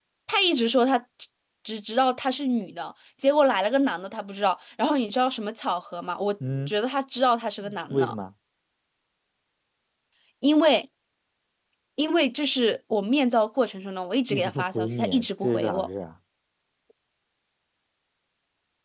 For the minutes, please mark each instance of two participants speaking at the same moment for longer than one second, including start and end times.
14.3-15.9

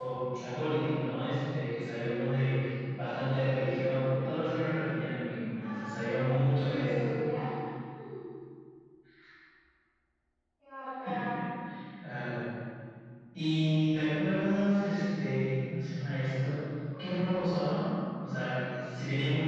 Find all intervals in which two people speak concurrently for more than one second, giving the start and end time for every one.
5.5-7.1

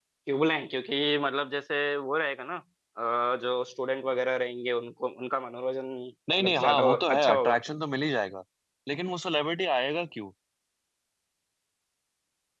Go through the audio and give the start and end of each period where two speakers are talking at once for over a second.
6.4-7.6

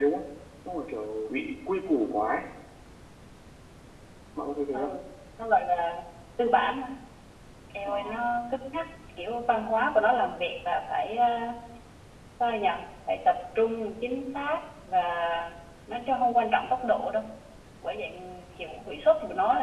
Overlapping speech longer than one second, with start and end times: none

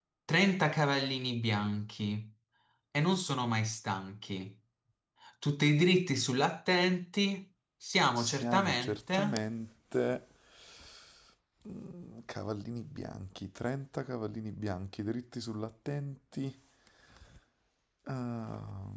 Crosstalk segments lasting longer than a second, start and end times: 8.2-9.4

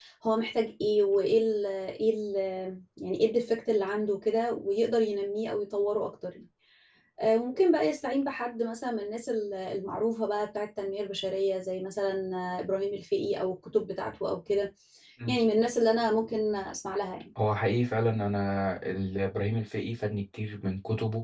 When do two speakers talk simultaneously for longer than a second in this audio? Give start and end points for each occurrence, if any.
none

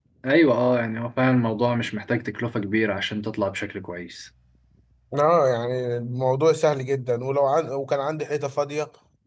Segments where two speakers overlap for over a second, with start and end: none

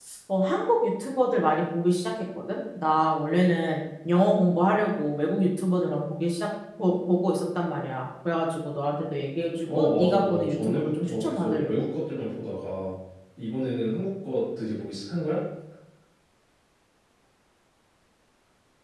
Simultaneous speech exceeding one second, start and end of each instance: 9.7-11.7

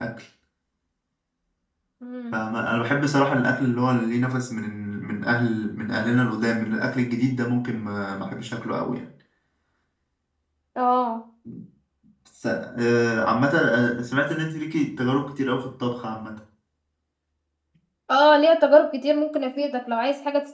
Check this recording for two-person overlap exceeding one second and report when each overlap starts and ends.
none

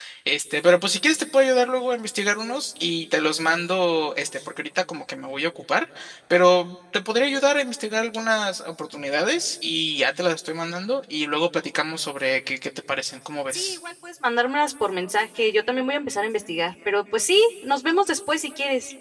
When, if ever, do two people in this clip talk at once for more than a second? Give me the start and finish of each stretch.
none

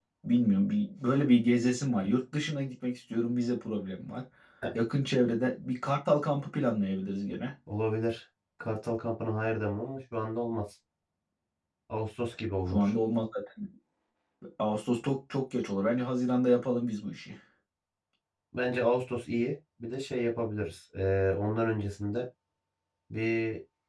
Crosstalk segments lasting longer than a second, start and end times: none

